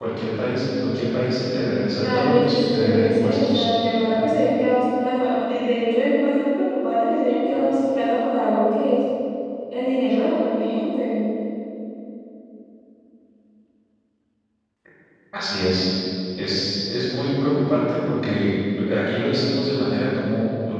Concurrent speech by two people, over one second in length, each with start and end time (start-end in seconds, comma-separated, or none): 2.0-3.6